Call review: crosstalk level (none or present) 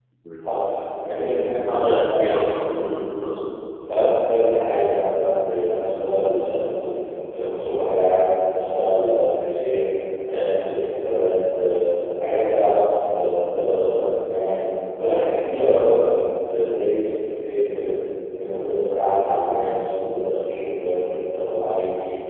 present